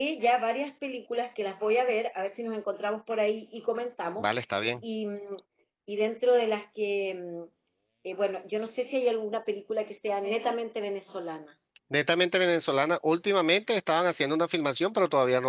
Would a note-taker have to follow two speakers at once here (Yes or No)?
No